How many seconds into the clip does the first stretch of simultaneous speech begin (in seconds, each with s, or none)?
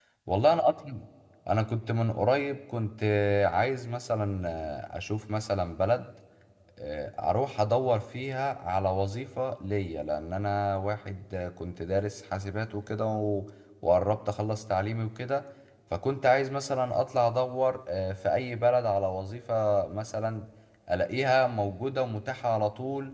none